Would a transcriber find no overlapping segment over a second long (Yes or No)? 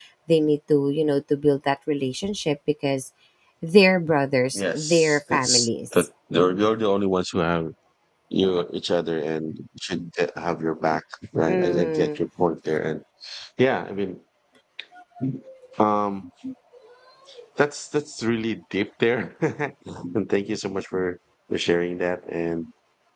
No